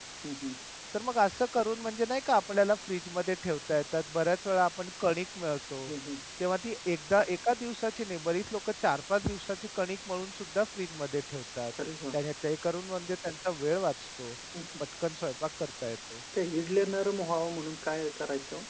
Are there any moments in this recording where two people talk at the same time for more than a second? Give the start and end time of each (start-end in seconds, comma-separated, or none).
none